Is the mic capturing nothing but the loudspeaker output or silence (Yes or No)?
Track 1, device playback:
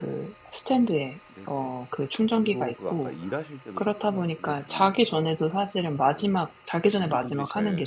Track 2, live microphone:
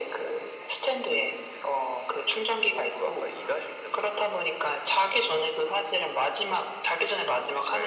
Yes